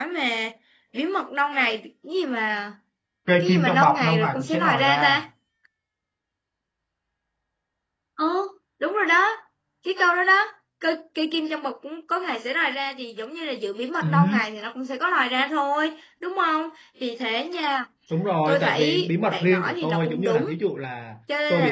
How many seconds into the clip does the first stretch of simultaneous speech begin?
3.4 s

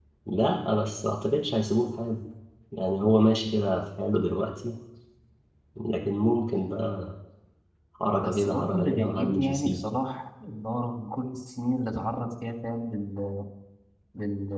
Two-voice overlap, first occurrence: 8.2 s

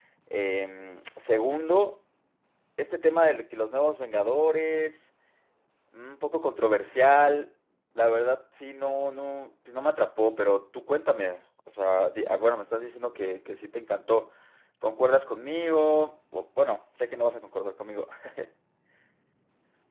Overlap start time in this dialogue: none

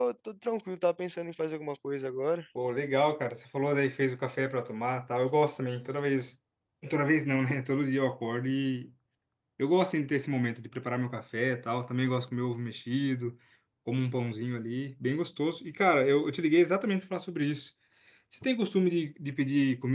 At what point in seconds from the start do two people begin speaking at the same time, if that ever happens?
none

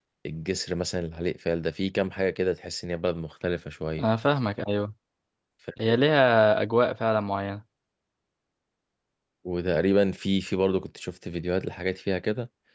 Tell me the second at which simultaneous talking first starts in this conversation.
none

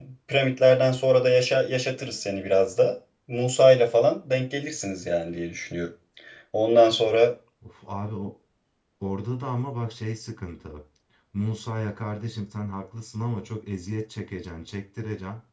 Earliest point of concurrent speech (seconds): none

